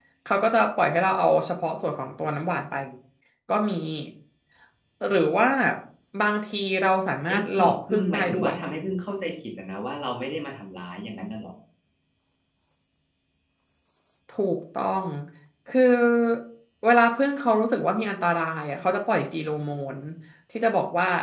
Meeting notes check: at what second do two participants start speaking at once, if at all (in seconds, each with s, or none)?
7.3 s